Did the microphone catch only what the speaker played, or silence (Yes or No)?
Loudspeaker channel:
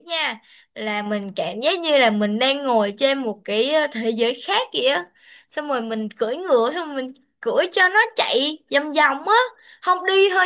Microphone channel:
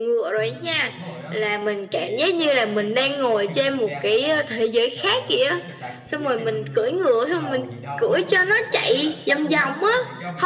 No